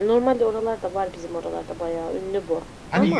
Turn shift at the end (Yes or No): Yes